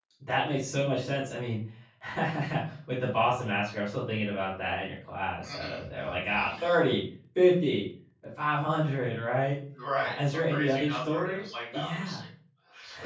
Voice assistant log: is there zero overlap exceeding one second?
No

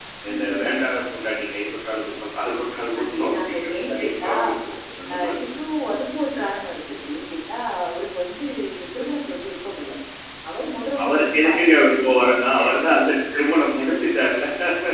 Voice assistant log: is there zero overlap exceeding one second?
No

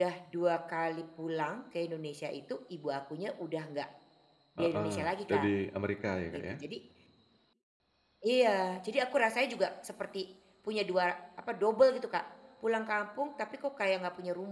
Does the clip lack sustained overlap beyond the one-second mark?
Yes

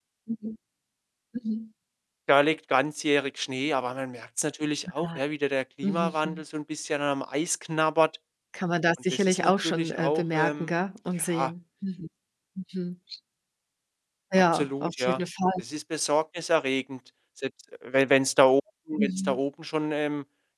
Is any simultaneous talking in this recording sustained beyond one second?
Yes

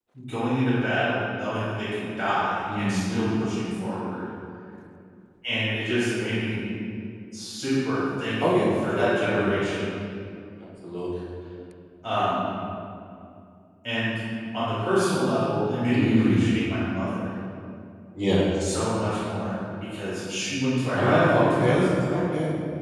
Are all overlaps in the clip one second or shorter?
No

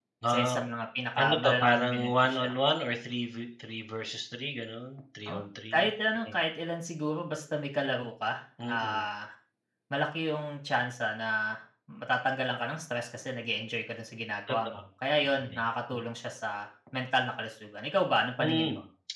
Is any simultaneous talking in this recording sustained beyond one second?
Yes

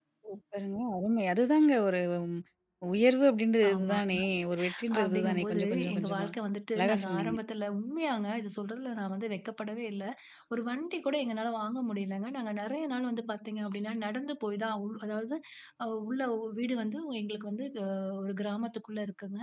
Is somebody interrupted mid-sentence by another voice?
Yes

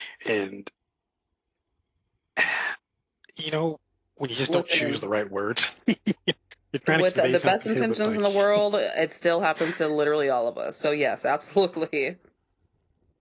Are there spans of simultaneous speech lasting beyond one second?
Yes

